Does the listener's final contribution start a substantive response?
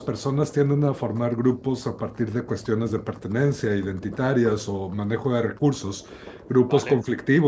No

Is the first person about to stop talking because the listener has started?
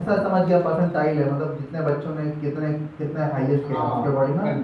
Yes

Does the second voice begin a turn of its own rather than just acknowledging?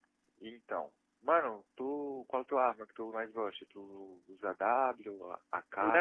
Yes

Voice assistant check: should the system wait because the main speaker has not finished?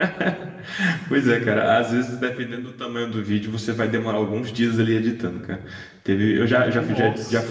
Yes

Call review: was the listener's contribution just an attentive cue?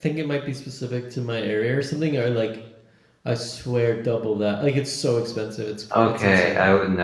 No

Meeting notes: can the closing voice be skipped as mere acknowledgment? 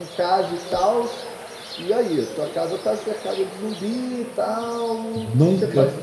No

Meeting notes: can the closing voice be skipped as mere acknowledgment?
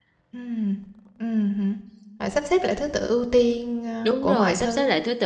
No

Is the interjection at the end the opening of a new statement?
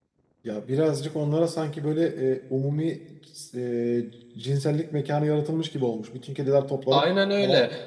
Yes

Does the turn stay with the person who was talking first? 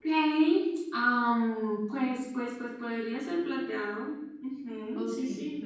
No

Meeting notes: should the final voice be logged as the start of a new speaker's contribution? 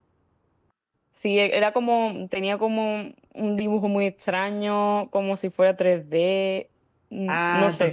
Yes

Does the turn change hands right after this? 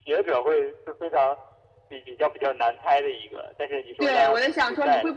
Yes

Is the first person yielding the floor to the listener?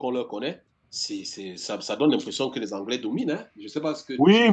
Yes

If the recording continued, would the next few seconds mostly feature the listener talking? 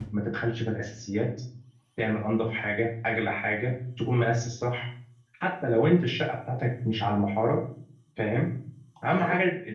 No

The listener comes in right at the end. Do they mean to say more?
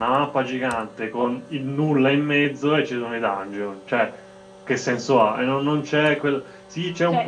Yes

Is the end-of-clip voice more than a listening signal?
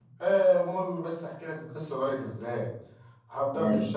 No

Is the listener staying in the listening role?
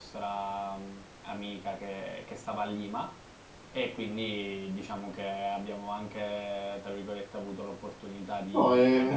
Yes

